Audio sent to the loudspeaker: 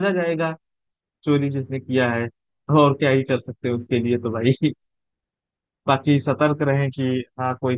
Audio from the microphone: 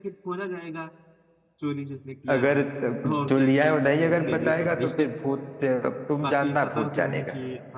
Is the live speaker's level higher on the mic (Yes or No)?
Yes